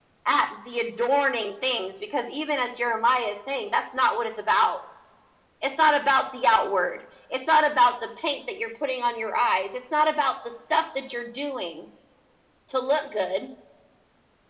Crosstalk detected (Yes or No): No